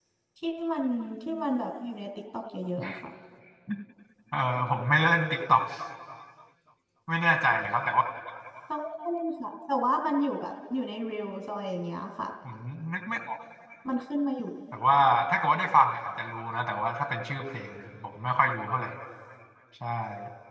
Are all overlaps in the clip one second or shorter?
Yes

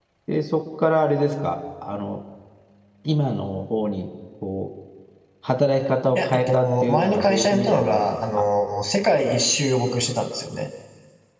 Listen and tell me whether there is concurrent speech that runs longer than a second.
Yes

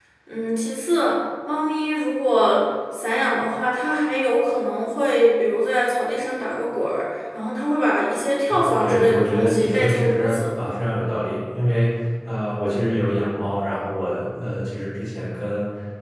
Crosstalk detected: Yes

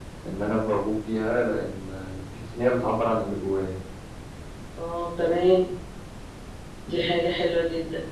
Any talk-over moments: No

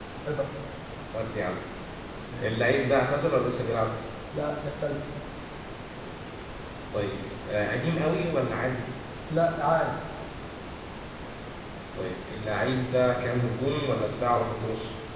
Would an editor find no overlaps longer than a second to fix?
Yes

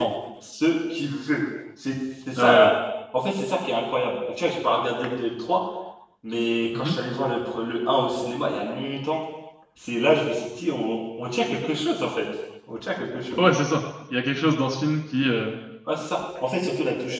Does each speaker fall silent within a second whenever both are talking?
Yes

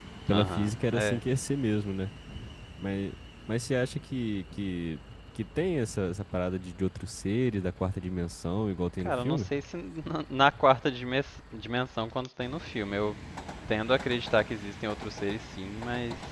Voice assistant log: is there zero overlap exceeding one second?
Yes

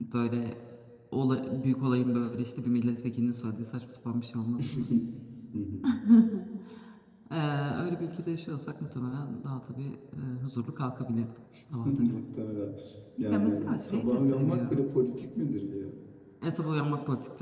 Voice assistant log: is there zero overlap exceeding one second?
No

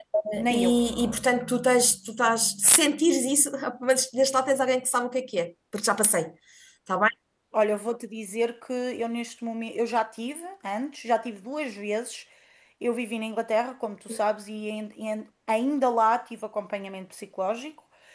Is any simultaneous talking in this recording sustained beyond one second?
No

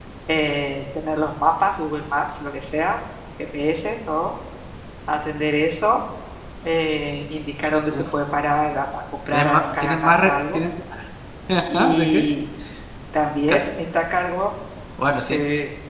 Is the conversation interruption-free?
No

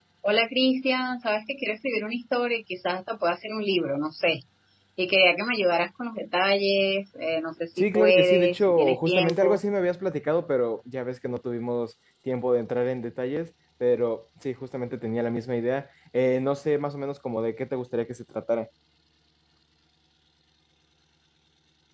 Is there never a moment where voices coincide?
No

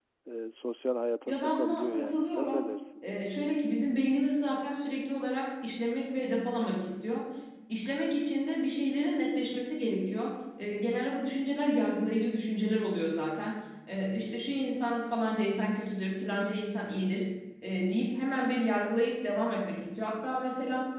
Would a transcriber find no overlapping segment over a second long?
No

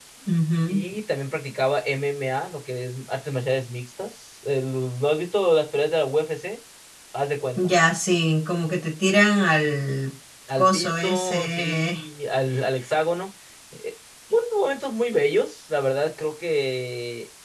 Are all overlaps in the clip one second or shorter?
No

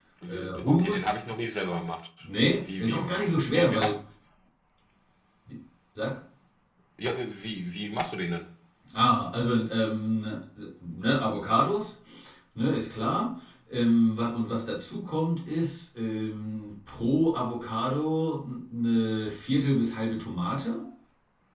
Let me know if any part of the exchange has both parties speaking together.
Yes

